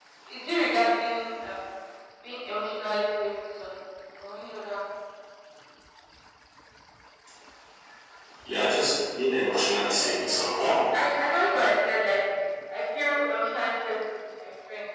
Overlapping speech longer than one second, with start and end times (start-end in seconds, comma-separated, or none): 9.4-11.0